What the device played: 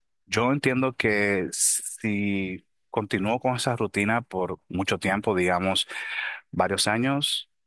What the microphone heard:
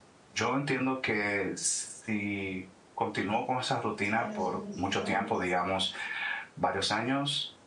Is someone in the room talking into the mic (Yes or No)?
Yes